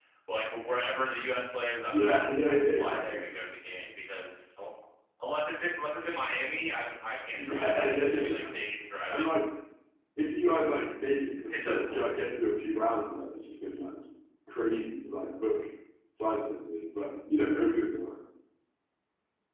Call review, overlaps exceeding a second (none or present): present